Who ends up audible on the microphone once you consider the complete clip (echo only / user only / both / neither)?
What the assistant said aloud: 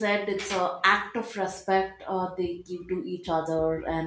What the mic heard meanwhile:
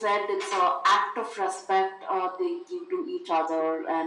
echo only